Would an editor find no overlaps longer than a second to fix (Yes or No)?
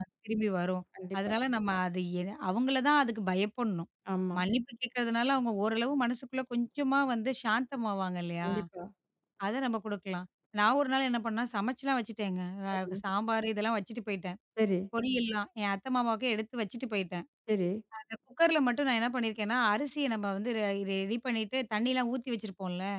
Yes